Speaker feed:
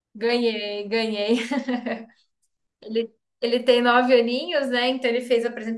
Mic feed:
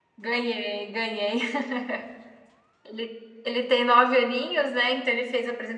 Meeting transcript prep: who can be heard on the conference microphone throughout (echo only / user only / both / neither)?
echo only